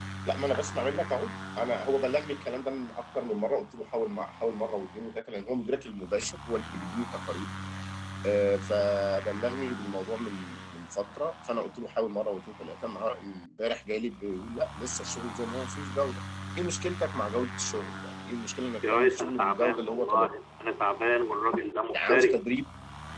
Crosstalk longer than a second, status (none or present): present